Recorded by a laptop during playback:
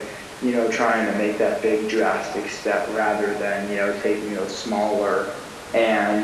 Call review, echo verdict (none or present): present